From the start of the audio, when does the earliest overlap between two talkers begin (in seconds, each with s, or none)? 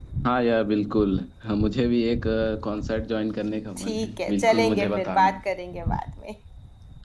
3.8 s